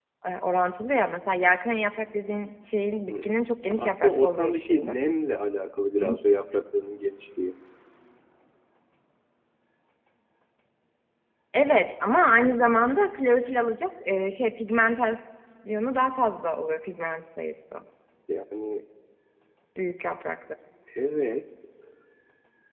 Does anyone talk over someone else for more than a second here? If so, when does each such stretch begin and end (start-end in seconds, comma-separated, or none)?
3.8-5.0